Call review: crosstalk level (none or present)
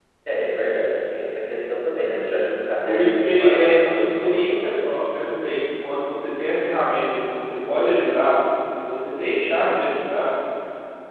present